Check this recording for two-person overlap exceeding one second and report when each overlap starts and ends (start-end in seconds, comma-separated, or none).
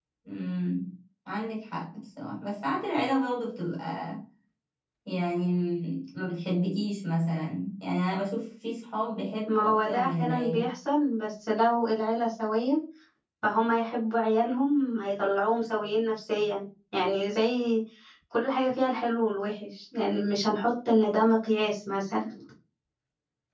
9.5-10.7